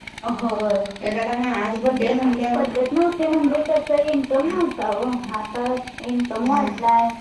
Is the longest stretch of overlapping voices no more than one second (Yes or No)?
Yes